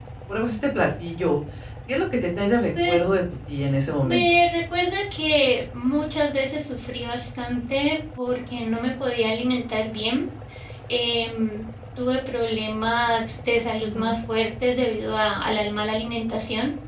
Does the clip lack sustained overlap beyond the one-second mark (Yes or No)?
Yes